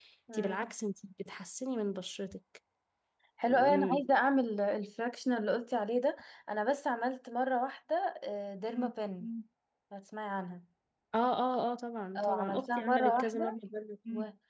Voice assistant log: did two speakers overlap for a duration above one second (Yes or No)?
Yes